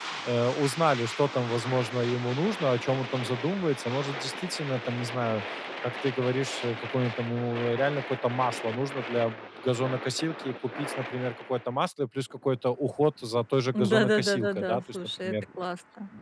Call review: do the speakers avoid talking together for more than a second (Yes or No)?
No